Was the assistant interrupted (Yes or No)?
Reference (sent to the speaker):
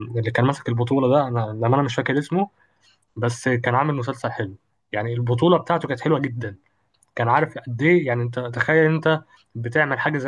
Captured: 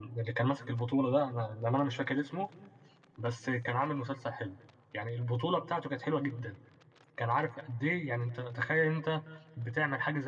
No